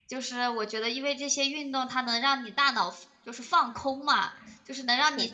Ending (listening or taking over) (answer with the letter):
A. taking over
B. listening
B